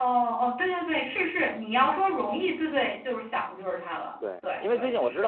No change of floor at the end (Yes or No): No